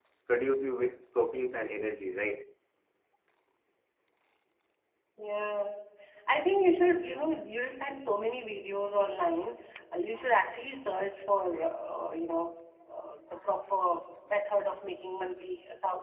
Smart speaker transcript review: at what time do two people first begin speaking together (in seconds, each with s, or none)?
none